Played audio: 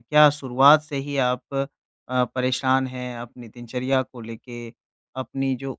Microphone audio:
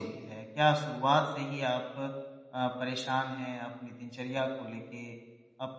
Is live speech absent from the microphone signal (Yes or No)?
Yes